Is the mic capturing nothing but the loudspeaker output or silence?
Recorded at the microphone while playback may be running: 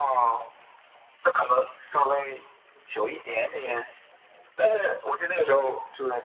Yes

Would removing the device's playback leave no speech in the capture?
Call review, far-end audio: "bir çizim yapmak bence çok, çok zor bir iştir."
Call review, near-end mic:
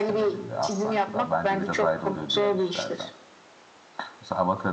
No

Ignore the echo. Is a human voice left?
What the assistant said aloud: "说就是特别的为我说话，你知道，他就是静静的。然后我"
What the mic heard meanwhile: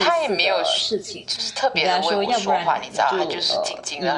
Yes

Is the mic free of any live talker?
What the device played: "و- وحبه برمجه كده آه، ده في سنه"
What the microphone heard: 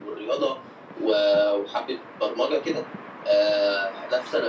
Yes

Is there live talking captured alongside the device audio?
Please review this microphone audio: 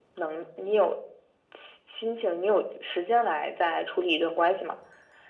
No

